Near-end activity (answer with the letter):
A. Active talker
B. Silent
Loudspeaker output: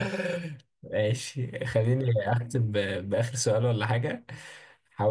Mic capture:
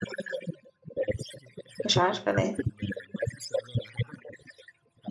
A